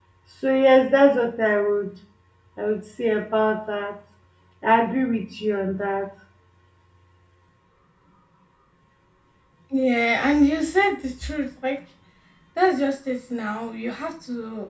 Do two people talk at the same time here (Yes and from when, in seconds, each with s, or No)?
No